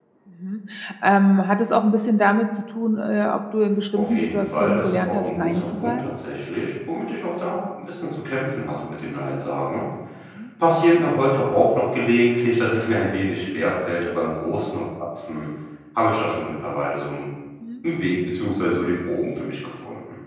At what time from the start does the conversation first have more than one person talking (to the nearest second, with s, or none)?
4 s